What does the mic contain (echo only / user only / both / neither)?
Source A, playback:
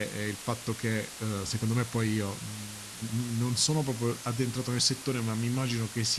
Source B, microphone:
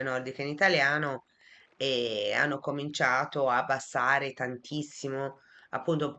user only